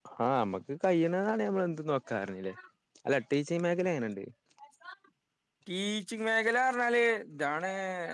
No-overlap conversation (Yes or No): Yes